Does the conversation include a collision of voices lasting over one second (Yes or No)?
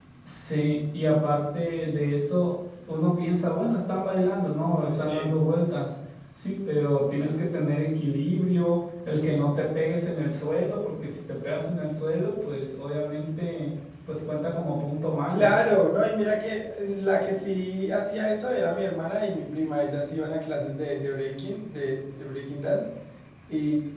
No